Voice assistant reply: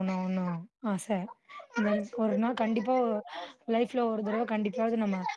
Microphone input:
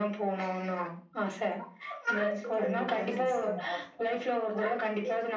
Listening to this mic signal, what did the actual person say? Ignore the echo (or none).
கண்டிப்பா சிஸ்டர்